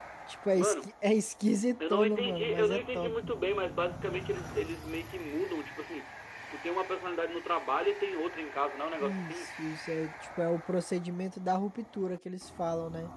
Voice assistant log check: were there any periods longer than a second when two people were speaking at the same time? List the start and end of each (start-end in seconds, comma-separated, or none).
1.9-3.1